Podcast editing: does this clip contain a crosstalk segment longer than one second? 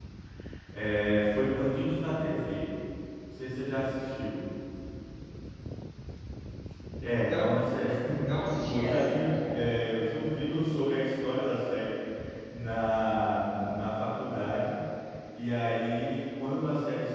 Yes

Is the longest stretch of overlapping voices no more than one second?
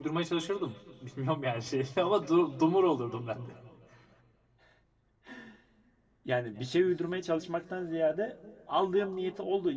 Yes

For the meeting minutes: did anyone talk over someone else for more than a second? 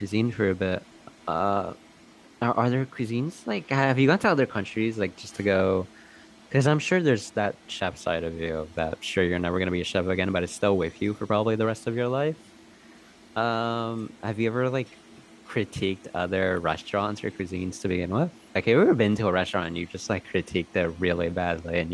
No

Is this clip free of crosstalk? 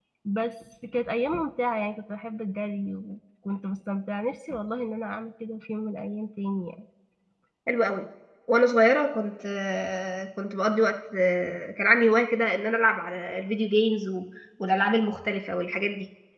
Yes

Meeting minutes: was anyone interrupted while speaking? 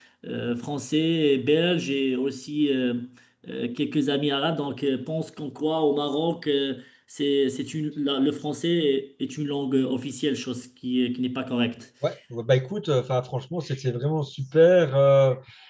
No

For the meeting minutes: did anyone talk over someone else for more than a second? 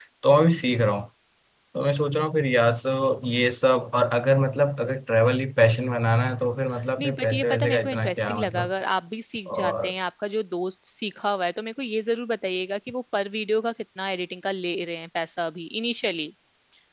Yes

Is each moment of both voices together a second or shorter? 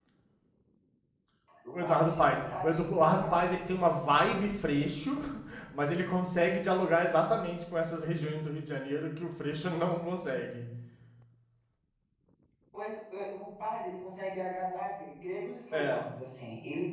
No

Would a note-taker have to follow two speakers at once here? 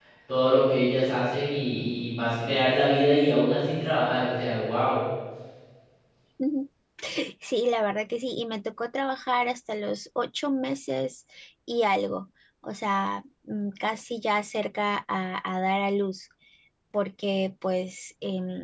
No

